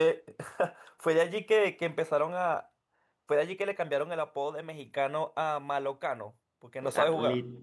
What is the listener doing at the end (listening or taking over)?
taking over